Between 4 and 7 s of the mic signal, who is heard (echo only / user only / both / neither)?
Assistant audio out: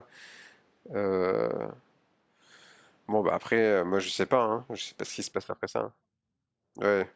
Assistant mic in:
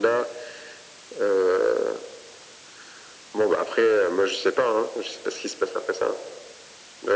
echo only